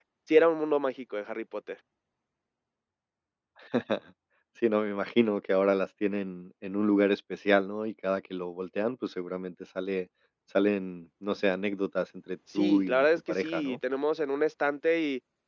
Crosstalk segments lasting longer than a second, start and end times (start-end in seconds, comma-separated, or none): 12.6-13.8